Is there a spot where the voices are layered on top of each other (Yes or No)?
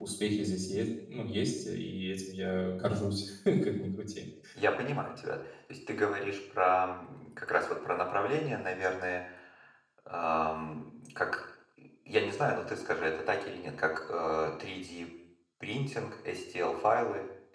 No